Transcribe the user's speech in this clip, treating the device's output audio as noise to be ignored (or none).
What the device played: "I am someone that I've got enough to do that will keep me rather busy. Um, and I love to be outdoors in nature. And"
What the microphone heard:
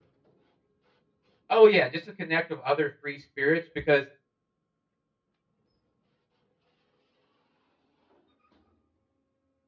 Oh, yeah, just to connect with other free spirits because